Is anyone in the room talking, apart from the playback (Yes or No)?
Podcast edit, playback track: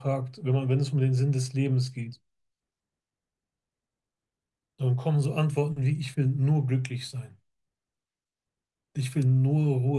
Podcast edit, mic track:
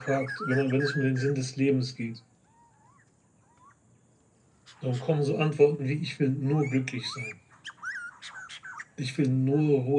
No